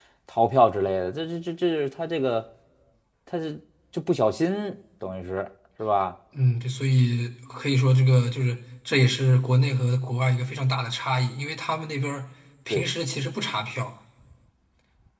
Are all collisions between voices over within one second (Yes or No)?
Yes